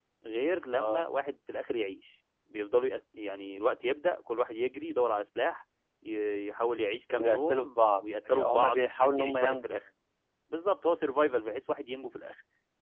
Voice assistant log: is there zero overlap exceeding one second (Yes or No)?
No